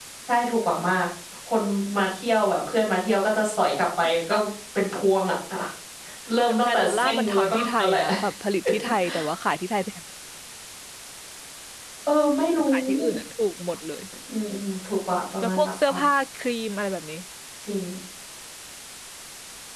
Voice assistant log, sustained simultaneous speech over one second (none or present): present